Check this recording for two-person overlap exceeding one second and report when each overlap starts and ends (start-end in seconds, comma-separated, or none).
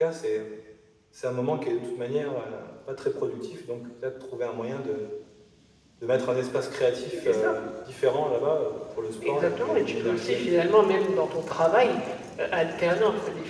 9.2-10.7